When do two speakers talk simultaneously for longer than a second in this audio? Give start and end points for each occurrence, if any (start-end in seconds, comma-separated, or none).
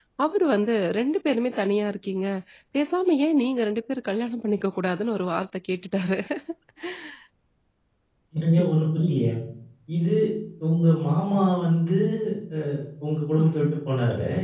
none